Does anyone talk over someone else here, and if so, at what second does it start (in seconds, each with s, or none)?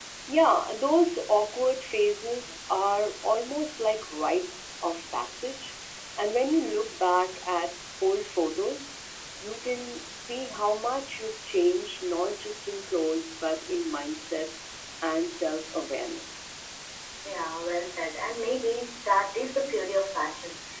none